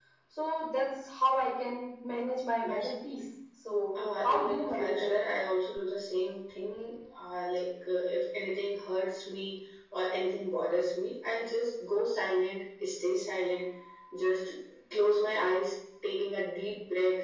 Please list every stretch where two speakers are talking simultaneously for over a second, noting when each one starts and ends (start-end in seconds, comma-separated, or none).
3.9-5.2